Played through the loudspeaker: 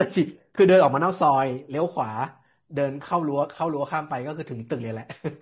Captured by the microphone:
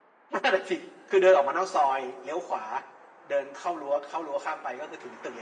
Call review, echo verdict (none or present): present